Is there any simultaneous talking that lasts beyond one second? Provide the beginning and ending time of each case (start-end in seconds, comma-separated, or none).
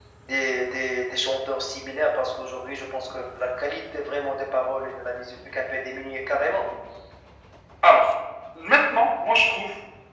none